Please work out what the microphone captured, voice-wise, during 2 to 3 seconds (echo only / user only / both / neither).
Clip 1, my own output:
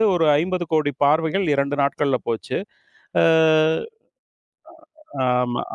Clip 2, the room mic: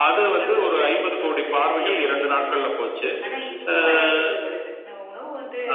both